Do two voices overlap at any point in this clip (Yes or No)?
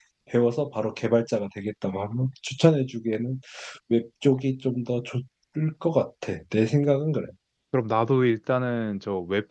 No